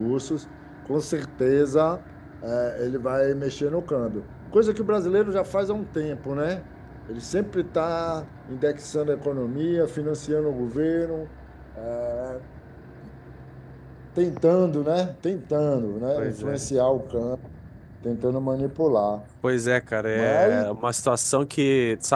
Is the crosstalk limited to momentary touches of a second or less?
Yes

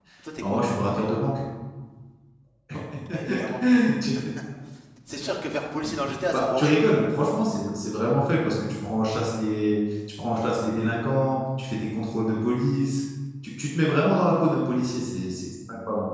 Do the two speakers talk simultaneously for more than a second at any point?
No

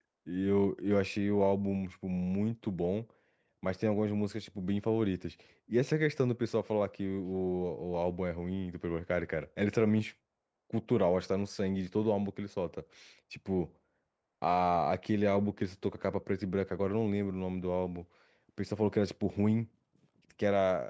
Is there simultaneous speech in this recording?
No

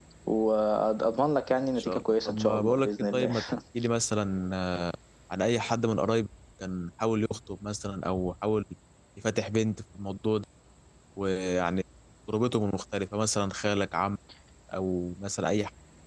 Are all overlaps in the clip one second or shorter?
No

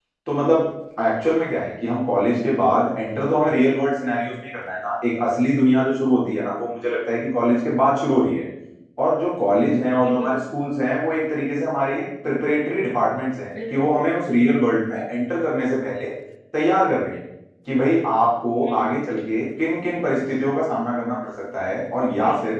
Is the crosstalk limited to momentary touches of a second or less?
Yes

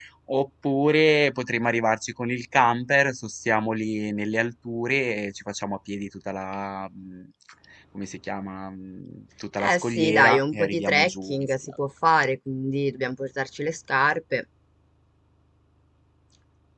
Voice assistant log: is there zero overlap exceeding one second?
No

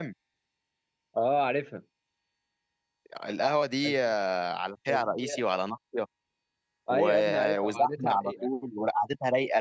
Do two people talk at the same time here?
Yes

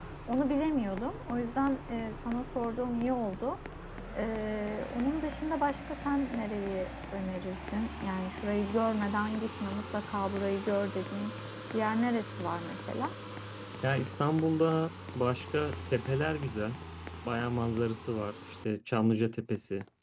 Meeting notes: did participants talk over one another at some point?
No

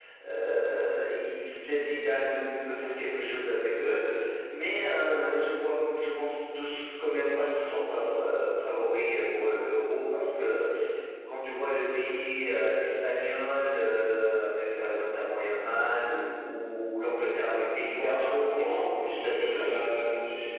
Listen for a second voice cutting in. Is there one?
Yes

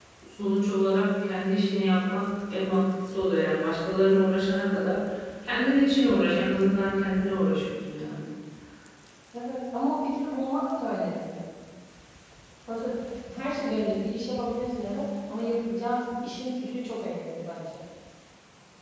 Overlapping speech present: No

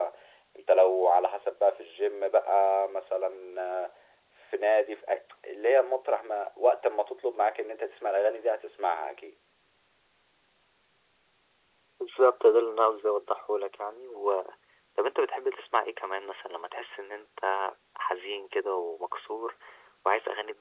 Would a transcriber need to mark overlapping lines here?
No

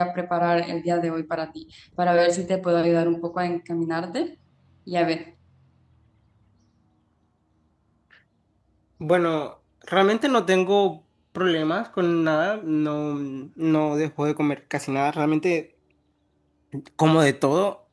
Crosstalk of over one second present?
No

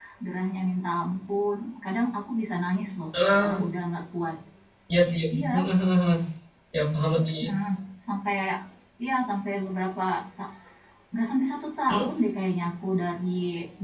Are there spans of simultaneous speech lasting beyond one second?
No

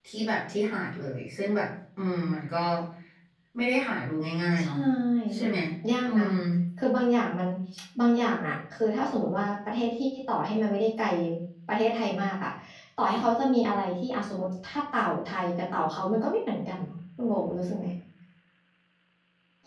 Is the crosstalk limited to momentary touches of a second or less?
Yes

